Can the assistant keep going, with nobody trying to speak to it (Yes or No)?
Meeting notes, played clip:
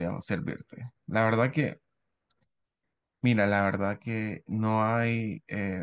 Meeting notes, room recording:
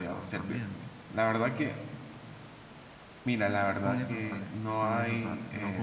No